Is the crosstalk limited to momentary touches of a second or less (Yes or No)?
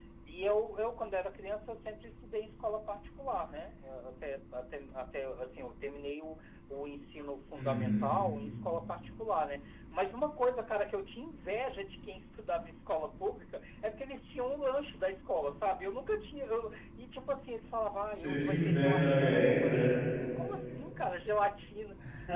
No